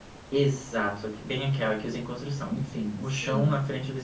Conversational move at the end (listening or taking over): listening